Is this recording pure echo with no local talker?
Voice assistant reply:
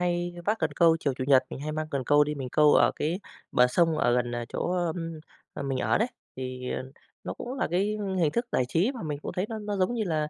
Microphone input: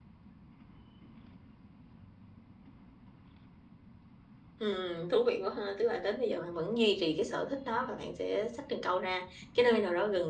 No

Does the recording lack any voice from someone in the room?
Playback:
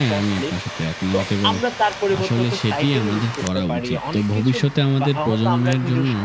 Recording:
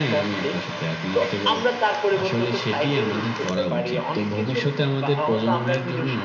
Yes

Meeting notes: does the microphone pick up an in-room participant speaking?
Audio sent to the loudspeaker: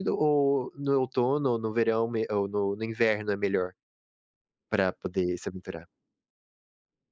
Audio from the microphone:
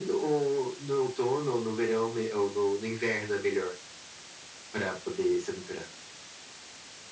No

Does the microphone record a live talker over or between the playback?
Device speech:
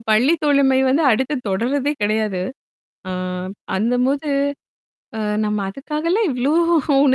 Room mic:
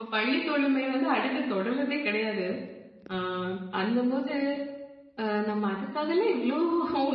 No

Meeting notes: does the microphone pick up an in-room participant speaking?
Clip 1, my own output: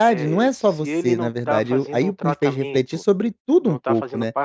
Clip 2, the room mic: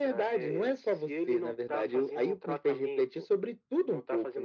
No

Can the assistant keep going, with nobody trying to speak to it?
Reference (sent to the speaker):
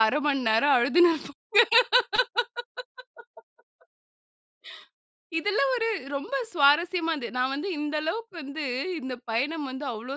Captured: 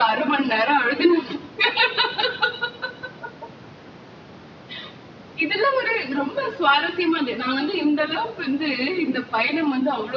Yes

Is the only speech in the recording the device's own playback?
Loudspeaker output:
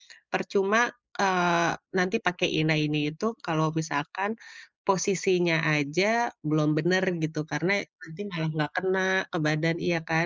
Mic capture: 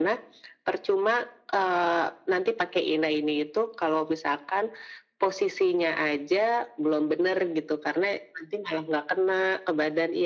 Yes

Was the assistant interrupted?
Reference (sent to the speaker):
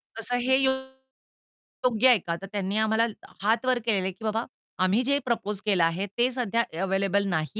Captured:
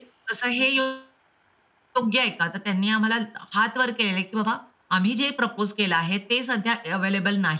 No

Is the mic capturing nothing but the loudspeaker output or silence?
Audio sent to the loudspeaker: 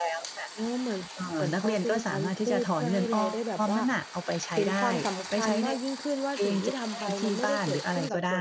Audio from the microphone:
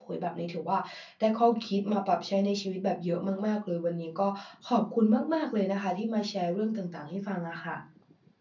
No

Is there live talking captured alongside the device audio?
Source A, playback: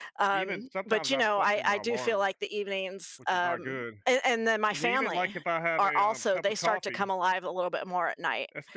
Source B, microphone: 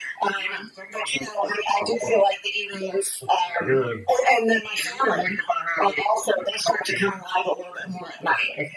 No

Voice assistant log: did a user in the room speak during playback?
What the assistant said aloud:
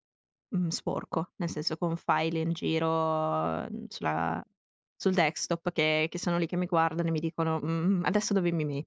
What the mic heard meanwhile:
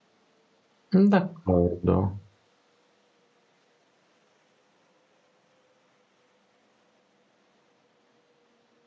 Yes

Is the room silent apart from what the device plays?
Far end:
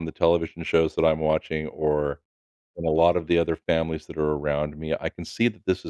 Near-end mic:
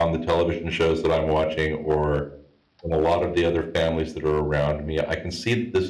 Yes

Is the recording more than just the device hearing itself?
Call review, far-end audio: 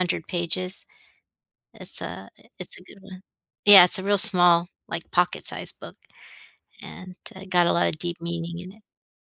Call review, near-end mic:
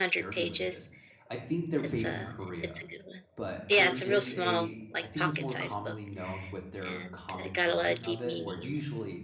Yes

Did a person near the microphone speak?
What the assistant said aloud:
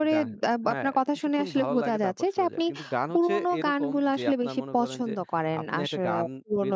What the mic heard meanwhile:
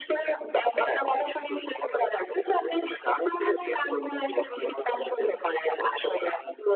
No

